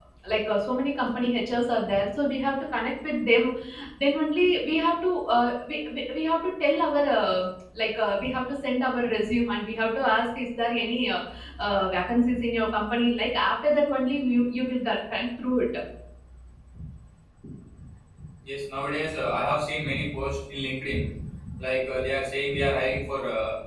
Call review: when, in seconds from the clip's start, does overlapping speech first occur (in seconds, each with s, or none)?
none